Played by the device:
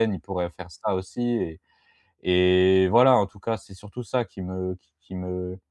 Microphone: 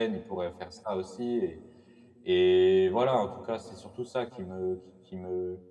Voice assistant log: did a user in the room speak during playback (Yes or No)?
No